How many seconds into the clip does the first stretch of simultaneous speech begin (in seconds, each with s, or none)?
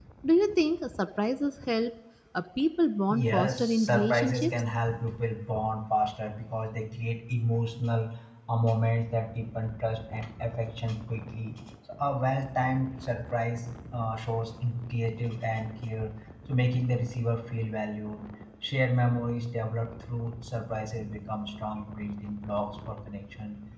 3.1 s